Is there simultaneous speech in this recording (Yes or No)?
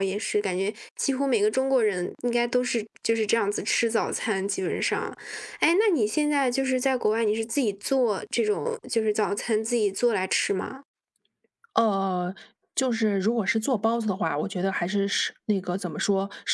No